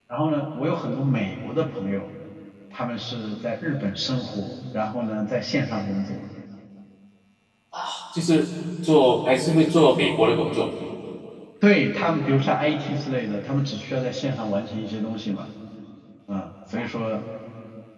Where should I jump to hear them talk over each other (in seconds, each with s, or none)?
none